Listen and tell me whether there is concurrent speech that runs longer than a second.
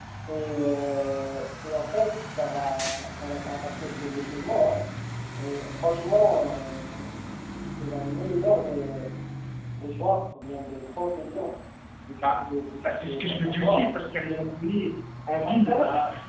Yes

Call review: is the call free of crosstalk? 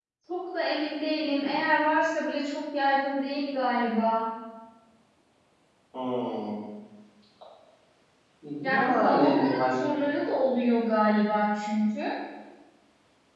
No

